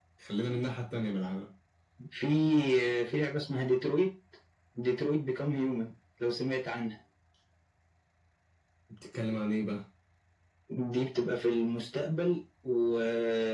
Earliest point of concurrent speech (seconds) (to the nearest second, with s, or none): none